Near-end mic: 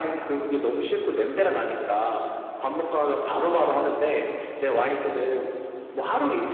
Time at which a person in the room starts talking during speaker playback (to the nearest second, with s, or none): none